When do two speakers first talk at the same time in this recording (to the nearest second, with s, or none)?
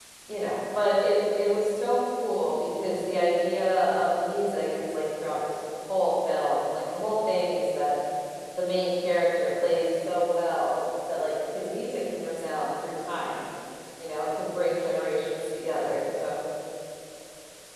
none